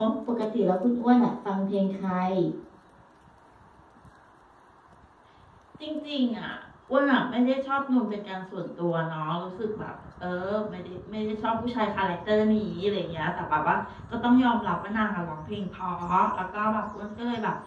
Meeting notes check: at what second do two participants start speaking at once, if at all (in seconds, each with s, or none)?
none